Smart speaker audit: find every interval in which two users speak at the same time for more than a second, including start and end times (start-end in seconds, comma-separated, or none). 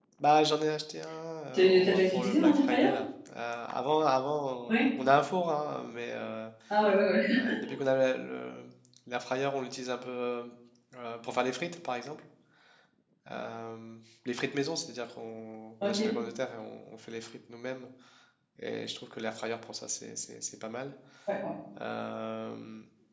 1.5-2.9